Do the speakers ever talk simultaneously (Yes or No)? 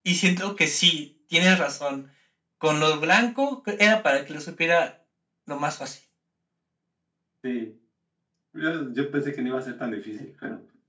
No